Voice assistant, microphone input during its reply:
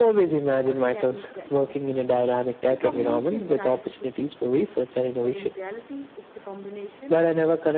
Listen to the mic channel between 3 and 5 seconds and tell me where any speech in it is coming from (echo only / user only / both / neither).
both